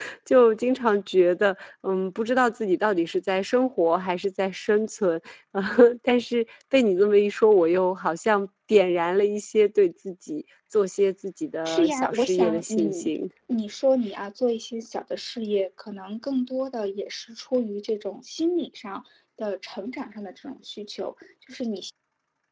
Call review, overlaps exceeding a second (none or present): present